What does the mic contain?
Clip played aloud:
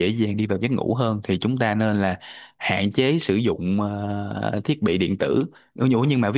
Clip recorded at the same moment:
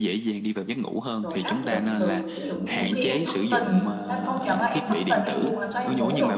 both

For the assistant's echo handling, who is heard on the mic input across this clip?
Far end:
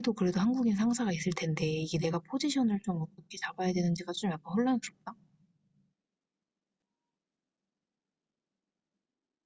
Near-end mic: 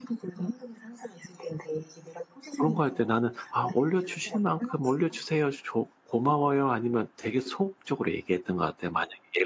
both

